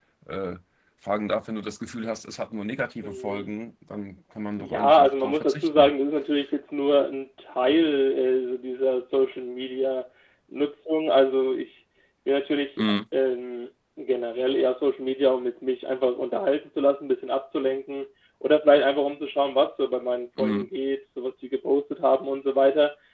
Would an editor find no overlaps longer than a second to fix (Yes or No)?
No